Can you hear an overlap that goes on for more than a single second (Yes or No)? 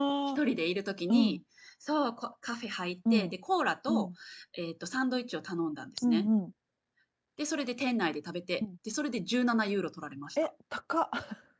No